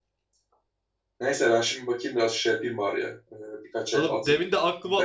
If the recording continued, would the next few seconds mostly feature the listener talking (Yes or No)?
Yes